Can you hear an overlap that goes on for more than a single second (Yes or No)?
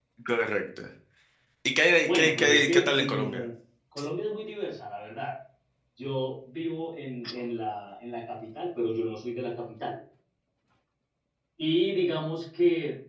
Yes